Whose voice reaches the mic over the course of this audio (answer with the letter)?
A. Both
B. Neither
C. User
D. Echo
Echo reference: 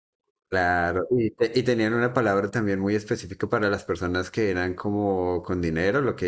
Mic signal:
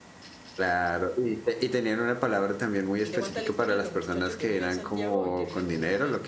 A